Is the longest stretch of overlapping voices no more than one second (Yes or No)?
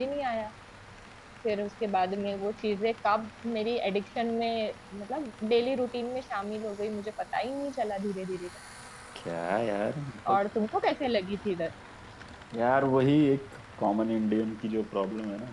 Yes